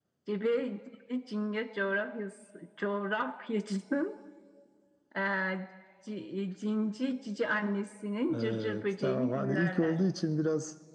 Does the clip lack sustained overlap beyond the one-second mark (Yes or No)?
No